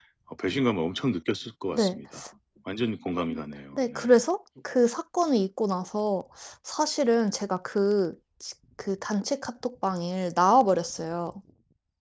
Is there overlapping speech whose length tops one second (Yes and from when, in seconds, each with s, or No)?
No